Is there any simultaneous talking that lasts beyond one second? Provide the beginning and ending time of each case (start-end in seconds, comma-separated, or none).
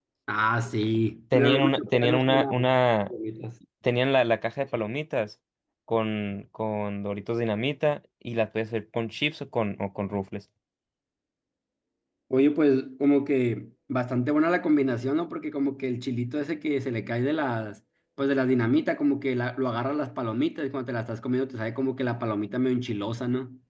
1.3-2.5